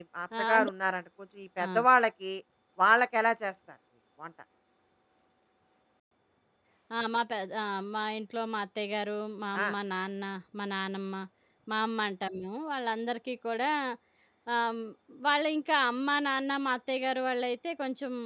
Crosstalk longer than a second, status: none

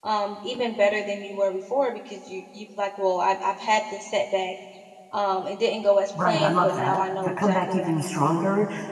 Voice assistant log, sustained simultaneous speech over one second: present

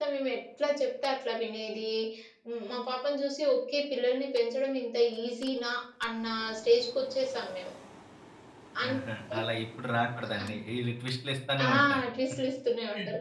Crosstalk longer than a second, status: none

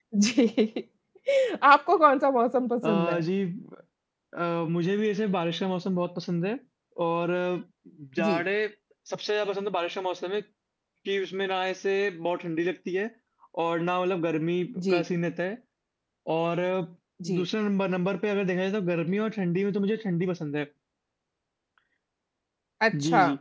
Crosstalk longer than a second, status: none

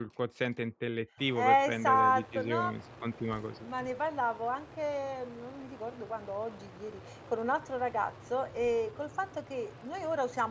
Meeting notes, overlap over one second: present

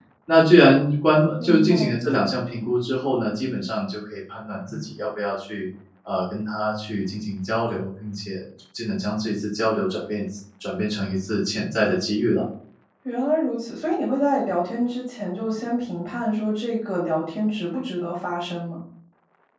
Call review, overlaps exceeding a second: none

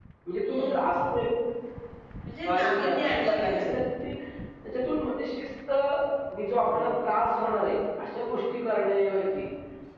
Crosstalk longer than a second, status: present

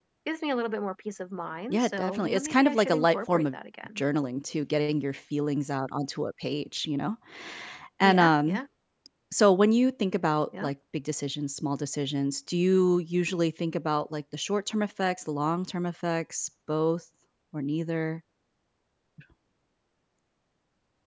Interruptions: present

